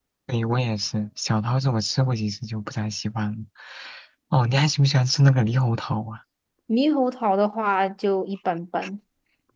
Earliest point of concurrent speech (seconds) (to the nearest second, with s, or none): none